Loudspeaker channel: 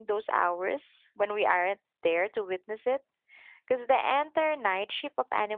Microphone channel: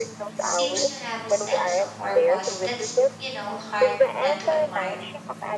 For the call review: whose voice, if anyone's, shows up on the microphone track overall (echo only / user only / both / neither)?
both